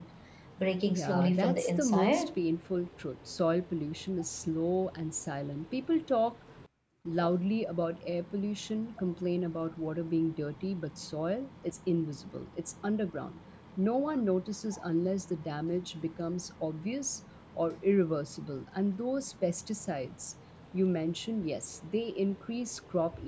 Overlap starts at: 0.9 s

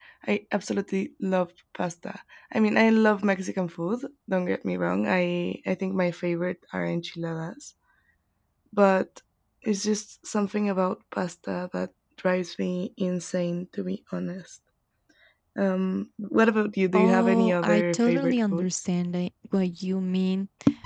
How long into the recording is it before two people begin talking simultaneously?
16.9 s

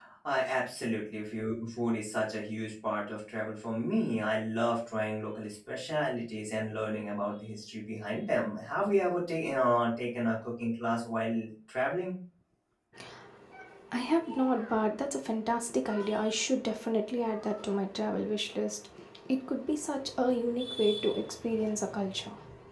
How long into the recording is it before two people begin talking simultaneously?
none

